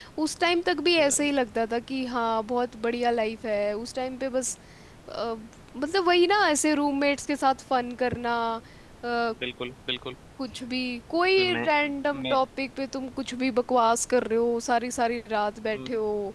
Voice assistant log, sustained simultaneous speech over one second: none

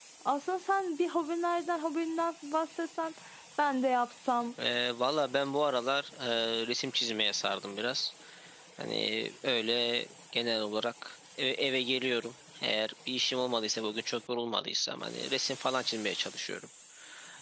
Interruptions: none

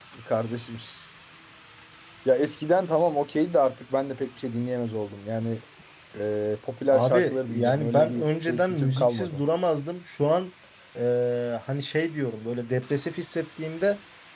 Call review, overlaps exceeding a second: present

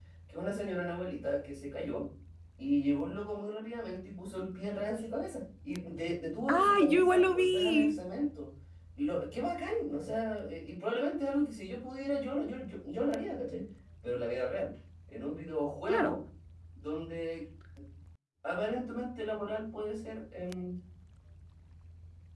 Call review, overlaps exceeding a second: present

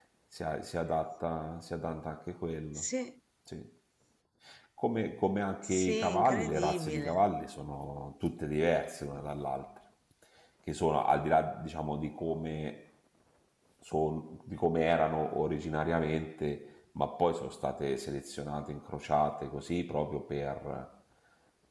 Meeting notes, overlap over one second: present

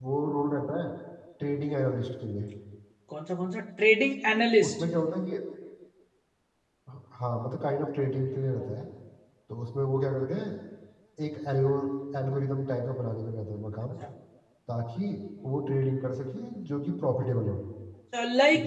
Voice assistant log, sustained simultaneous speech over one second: none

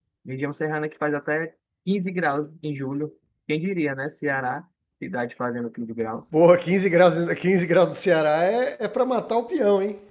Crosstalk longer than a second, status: none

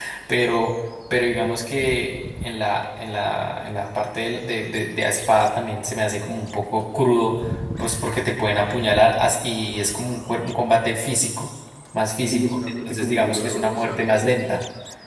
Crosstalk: present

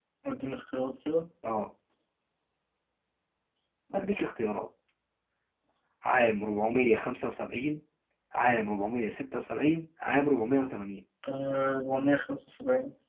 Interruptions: none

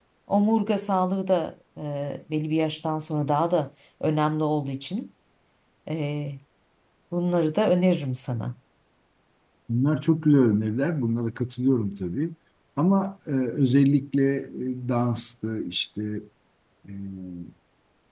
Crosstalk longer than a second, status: none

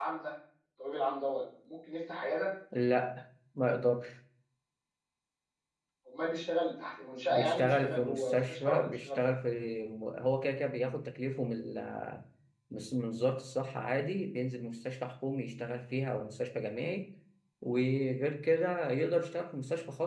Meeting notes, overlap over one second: present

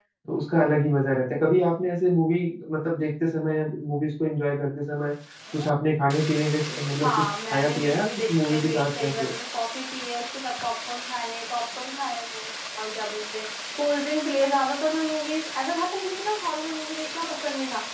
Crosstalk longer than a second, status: present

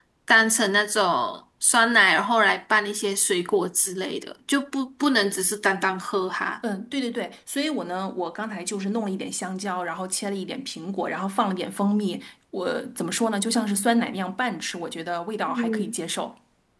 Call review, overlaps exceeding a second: none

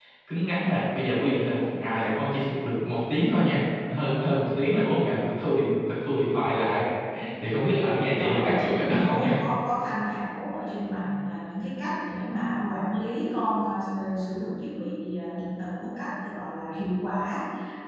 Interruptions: present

